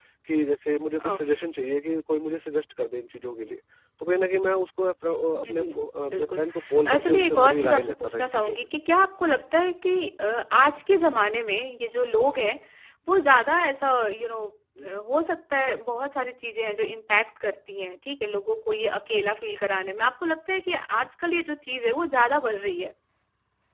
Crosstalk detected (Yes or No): Yes